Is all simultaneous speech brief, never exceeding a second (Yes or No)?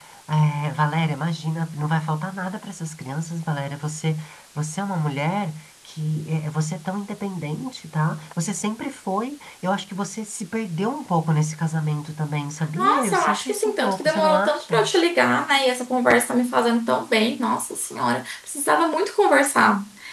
No